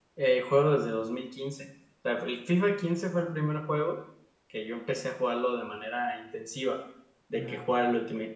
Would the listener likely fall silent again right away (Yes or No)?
Yes